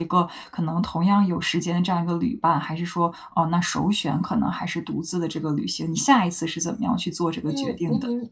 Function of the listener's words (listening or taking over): taking over